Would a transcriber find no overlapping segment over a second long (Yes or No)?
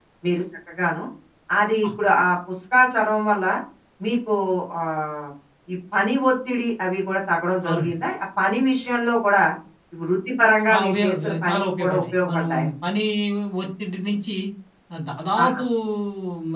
No